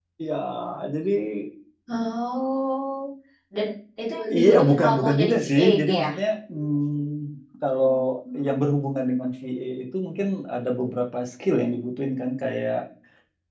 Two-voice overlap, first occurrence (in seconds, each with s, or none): 4.4 s